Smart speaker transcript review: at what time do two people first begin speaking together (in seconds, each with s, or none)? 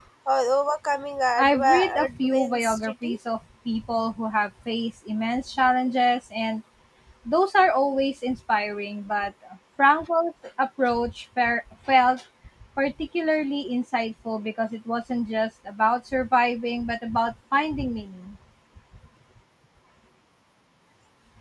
1.4 s